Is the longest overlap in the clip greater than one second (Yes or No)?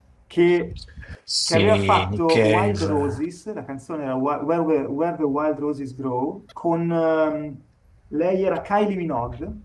Yes